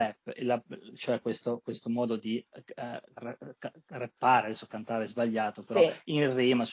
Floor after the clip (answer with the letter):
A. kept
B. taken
A